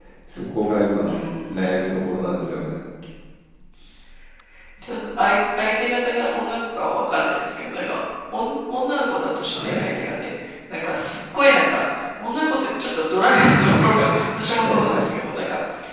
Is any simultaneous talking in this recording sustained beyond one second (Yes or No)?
No